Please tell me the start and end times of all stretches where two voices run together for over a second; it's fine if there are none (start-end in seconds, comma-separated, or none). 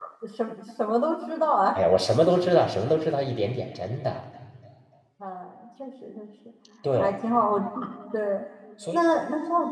none